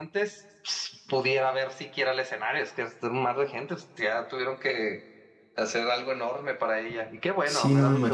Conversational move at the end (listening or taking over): taking over